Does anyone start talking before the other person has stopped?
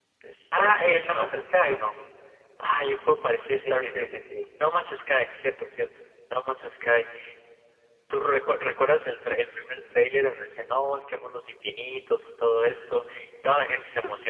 Yes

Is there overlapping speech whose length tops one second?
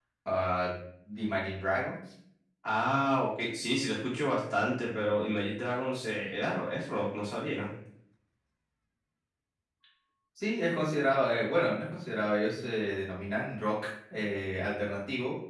No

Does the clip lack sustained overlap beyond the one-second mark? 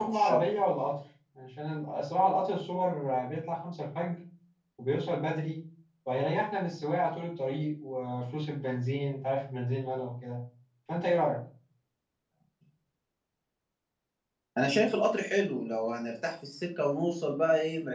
Yes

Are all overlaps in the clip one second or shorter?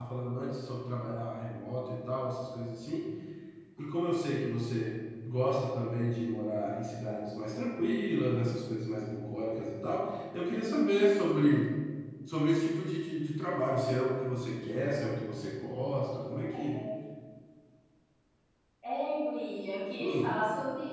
Yes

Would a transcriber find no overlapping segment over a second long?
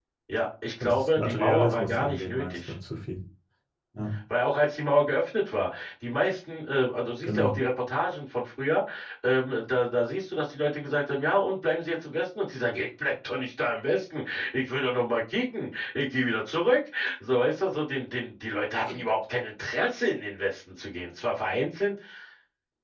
No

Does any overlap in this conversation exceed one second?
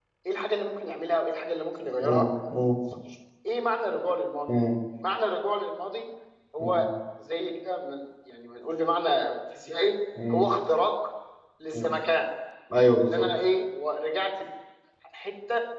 No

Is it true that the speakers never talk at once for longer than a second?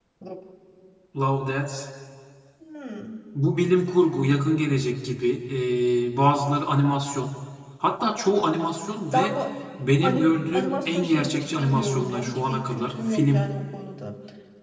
No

